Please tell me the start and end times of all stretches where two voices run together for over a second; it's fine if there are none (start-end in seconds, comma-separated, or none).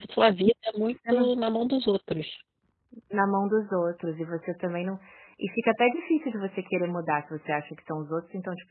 none